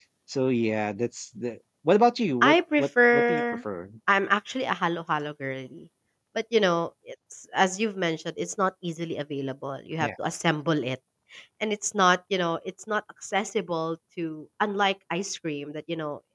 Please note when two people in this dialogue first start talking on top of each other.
2.4 s

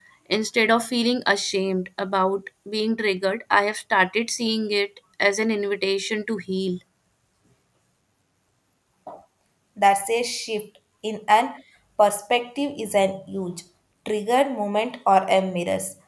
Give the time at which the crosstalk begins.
none

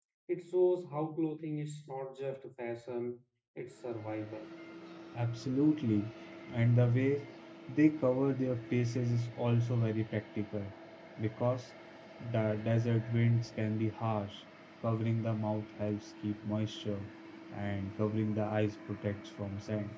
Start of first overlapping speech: none

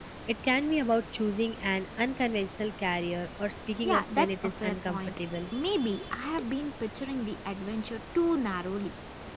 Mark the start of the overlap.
3.8 s

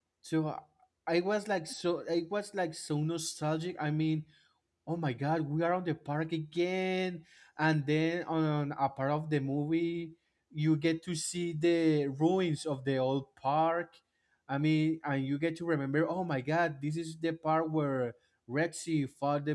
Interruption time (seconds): none

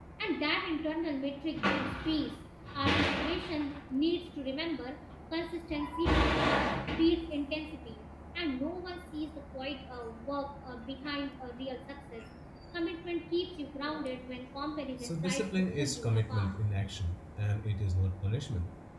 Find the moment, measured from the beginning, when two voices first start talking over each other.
15.0 s

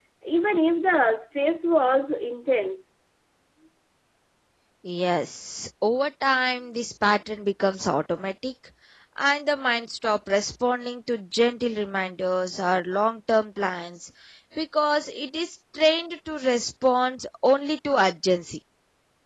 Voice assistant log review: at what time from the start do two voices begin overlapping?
none

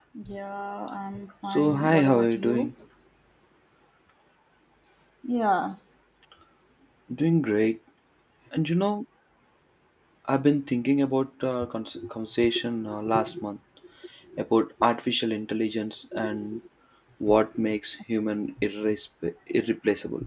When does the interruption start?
1.5 s

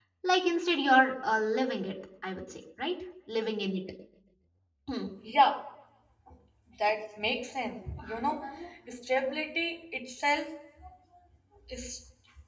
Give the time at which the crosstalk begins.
none

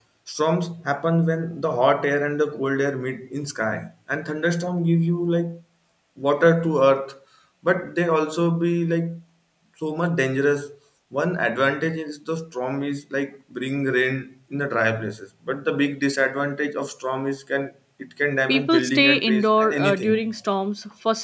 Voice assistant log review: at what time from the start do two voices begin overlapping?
18.5 s

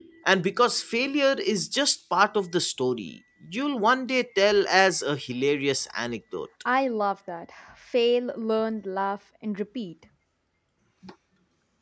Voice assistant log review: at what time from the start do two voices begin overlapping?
none

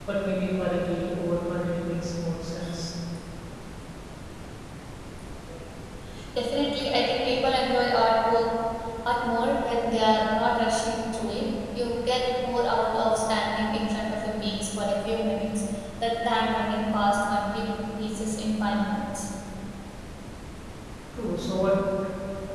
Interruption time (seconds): none

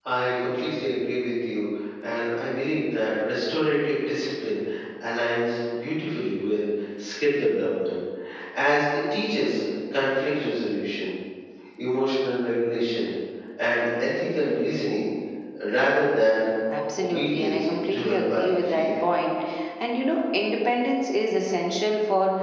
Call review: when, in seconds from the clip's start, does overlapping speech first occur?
17.0 s

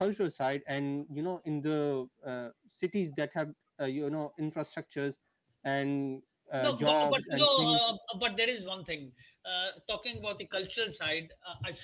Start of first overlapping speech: 6.6 s

